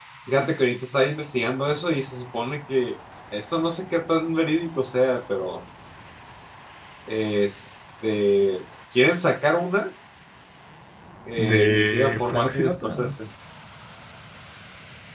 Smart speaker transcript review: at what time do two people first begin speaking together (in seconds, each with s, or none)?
11.4 s